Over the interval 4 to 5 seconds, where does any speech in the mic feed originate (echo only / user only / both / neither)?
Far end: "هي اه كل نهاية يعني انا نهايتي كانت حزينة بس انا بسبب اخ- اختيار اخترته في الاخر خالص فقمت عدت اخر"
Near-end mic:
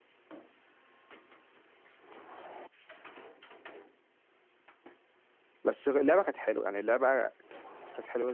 neither